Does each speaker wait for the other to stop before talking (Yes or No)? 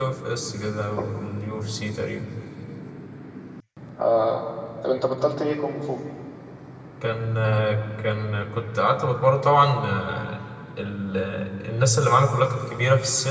Yes